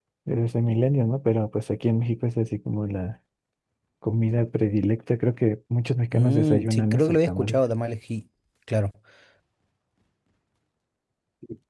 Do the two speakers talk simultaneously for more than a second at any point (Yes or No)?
Yes